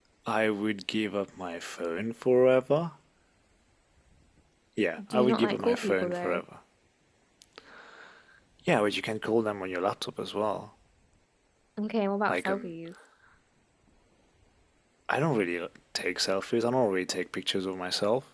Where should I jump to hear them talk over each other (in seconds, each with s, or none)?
5.1 s